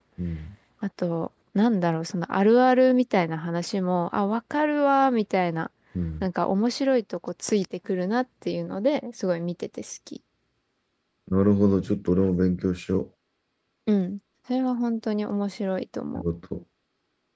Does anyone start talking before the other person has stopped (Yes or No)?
No